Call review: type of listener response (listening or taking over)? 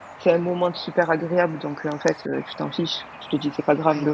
listening